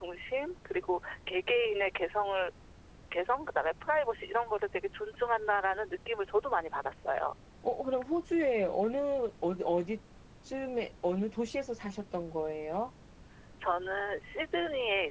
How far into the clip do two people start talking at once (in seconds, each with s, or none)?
none